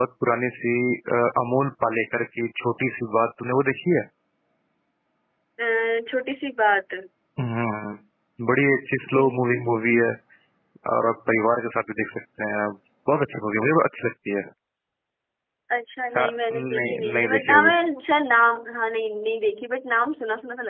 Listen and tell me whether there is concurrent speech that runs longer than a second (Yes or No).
Yes